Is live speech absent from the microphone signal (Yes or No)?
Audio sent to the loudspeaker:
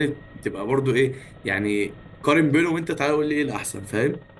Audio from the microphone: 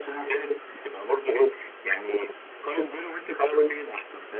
Yes